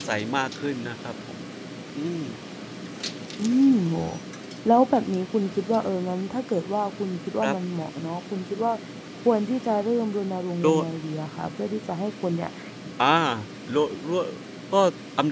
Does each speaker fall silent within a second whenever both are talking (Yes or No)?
Yes